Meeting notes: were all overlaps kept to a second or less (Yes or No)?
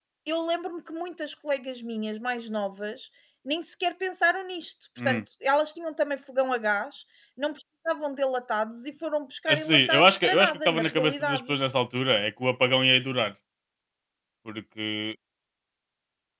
No